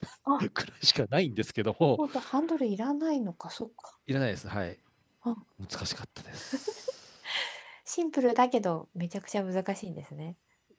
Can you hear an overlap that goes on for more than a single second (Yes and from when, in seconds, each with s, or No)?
No